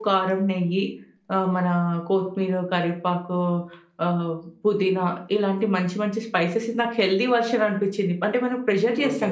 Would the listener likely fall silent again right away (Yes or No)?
No